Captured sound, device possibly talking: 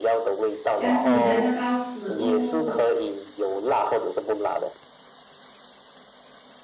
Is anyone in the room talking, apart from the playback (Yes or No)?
Yes